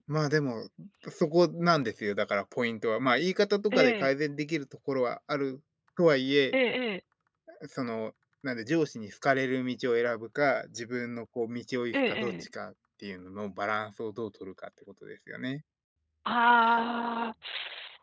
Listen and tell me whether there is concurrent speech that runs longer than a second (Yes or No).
No